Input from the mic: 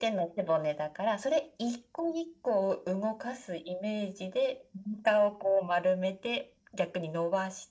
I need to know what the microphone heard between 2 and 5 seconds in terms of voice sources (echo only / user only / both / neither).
echo only